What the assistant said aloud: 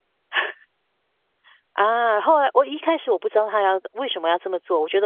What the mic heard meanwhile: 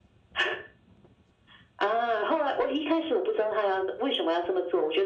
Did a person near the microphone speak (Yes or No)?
No